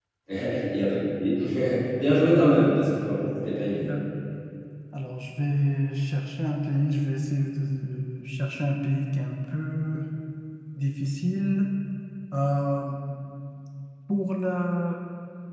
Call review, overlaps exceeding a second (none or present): none